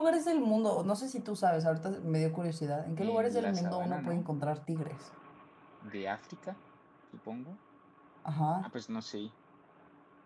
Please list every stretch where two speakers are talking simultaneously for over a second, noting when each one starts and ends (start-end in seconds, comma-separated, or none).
3.0-4.2